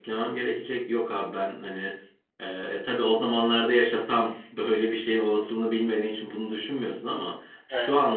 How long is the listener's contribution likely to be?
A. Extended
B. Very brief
B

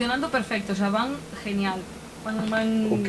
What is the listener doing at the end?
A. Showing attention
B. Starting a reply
A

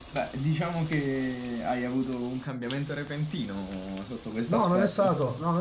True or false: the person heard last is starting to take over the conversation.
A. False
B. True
B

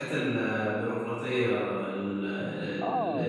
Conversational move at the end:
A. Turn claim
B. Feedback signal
A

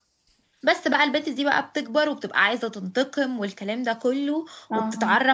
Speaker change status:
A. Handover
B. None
B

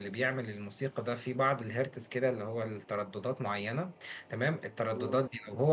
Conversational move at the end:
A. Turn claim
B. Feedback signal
B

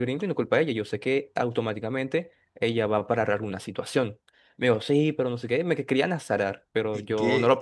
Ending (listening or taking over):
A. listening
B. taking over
B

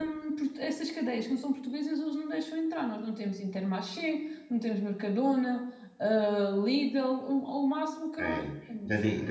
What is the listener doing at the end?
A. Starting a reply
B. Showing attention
A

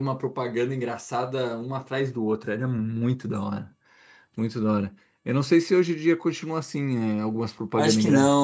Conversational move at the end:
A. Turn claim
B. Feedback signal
A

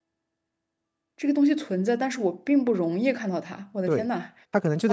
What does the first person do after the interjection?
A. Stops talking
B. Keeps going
A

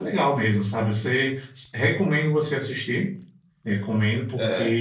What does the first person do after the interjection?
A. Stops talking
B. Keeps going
B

